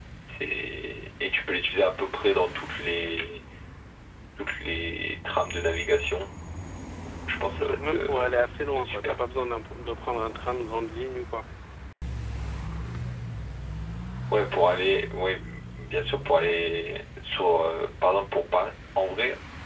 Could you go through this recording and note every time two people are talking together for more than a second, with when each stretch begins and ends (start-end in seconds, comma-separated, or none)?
7.6-9.1